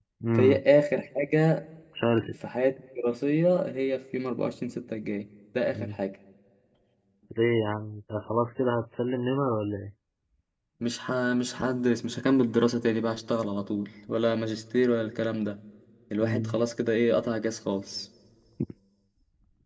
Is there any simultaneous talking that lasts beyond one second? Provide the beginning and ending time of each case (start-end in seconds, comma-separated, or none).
none